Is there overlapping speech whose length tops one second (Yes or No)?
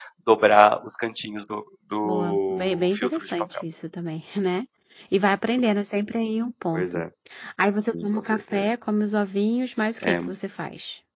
Yes